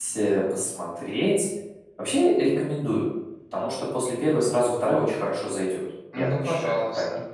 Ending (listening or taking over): taking over